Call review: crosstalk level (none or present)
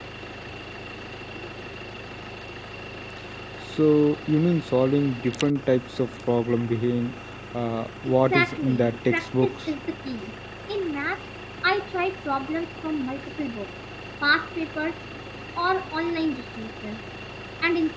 present